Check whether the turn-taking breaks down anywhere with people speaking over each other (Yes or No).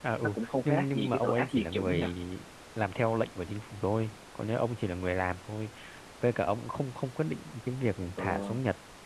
Yes